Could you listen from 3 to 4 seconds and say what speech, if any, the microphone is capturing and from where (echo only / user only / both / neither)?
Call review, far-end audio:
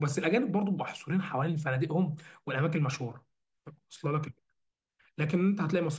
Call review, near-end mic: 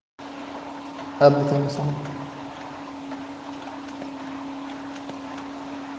neither